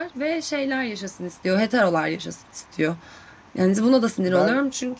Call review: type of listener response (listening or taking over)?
taking over